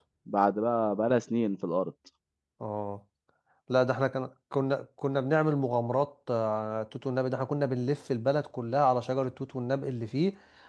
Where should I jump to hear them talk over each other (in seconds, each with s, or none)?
none